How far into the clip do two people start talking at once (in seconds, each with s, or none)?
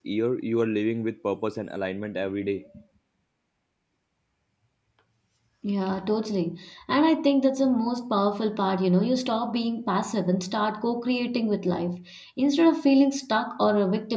none